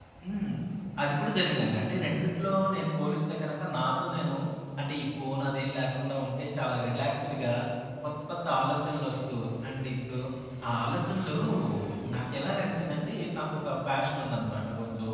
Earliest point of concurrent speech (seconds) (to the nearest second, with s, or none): none